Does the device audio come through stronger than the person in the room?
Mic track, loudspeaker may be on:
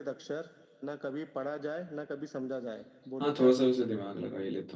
No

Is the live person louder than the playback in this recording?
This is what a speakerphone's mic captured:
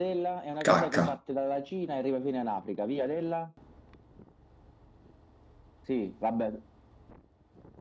Yes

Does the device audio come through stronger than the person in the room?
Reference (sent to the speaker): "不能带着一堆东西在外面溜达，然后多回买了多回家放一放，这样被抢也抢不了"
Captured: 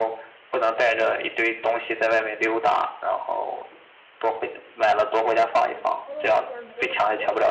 Yes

